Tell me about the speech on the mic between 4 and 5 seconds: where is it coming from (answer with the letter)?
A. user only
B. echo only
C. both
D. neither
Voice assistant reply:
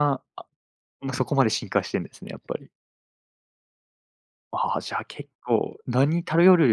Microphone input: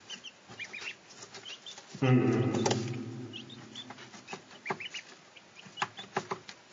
D